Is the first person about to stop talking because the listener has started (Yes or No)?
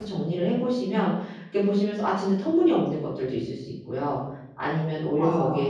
No